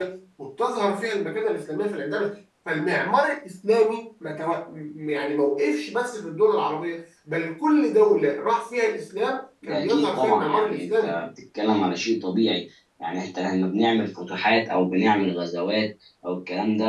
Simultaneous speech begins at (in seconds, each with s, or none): 9.6 s